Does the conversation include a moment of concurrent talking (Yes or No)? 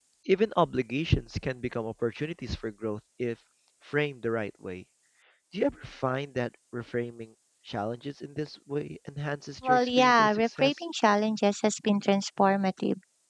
Yes